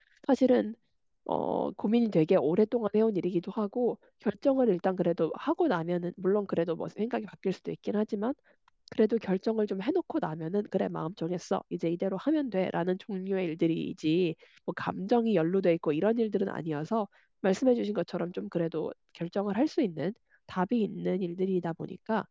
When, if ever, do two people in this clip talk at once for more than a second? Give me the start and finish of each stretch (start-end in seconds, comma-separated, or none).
none